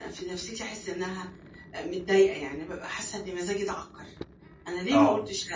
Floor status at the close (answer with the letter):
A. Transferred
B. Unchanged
B